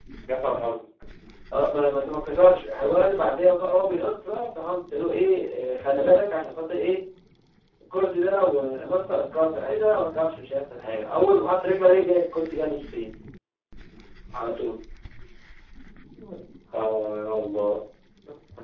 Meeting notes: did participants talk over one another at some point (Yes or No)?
No